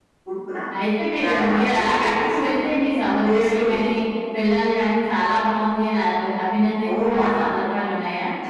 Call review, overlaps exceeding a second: present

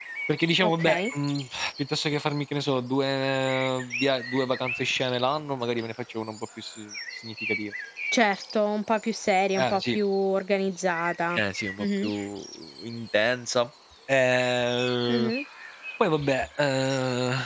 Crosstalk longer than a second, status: none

